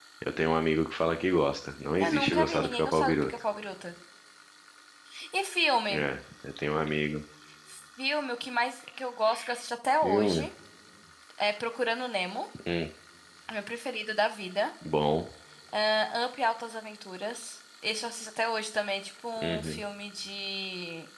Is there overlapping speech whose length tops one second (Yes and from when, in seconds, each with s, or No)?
Yes, from 2.0 s